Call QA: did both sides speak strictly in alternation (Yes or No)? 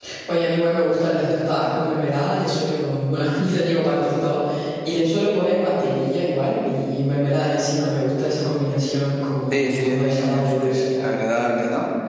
No